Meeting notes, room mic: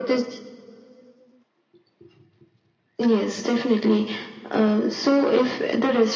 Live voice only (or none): none